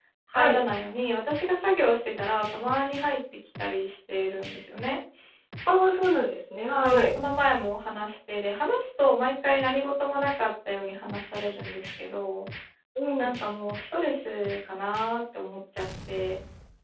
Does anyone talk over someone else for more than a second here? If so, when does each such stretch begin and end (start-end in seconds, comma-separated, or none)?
none